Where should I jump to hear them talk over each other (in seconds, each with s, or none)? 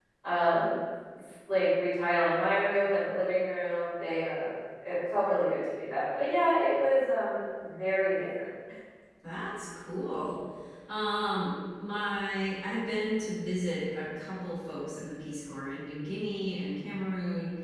none